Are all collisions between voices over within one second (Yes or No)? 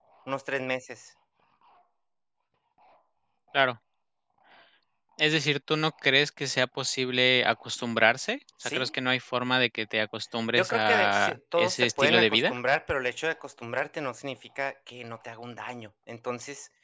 No